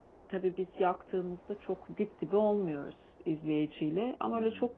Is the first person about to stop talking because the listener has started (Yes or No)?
No